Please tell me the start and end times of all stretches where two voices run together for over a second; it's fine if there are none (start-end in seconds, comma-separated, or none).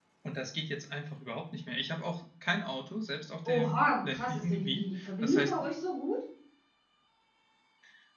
3.5-5.5